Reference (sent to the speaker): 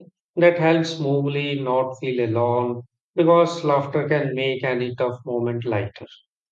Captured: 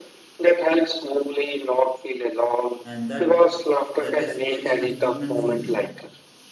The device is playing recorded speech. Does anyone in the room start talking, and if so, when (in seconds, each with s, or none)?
2.8 s